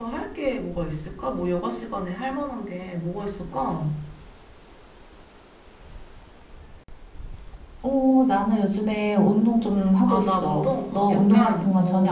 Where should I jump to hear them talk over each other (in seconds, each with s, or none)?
10.1 s